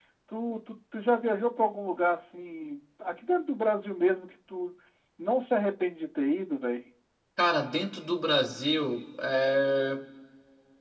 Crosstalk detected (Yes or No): No